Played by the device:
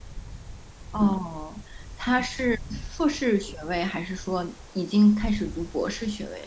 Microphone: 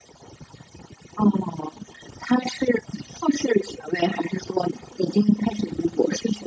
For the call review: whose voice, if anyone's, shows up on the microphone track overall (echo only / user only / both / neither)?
echo only